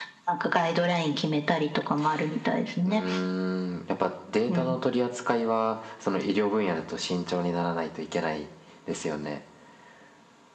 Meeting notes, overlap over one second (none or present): none